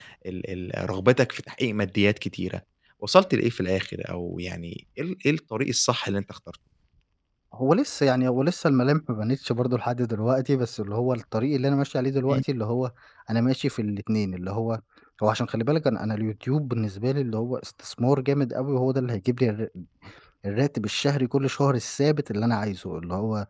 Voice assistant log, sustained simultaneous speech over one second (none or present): none